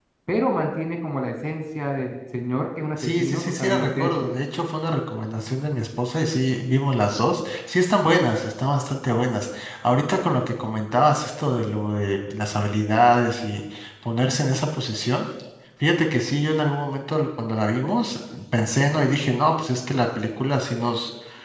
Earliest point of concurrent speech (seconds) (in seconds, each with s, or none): 3.0 s